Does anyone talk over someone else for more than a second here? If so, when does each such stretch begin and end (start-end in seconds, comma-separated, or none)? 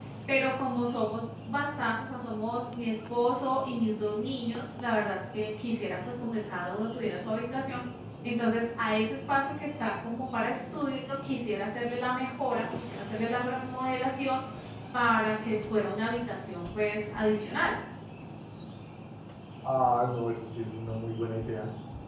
none